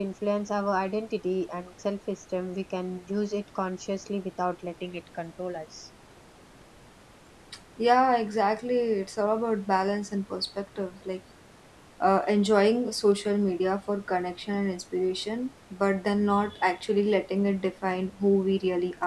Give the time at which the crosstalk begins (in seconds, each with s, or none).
none